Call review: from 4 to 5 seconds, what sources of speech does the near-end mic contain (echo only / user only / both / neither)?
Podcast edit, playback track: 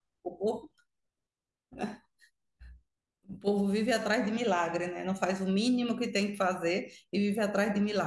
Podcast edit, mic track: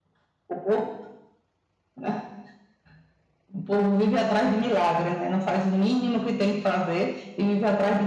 echo only